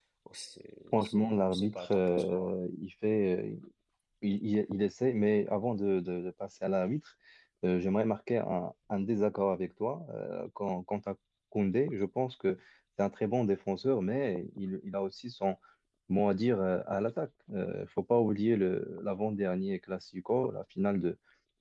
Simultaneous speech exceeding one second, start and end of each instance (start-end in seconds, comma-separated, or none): 0.9-2.5